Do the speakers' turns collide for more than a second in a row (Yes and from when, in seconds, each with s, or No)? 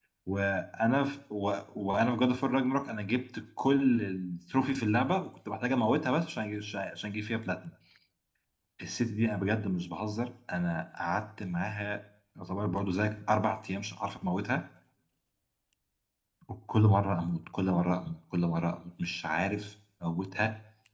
No